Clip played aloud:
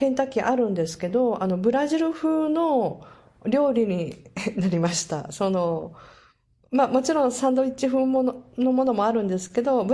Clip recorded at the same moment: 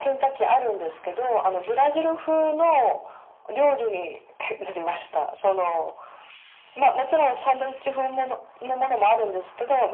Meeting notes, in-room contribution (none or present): none